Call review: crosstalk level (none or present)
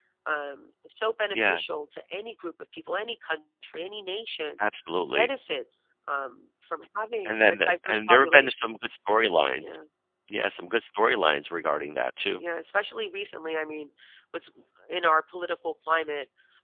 present